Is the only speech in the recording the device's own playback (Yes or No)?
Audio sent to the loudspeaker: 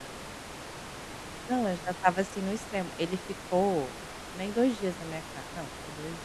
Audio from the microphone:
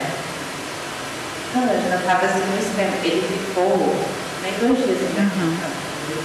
No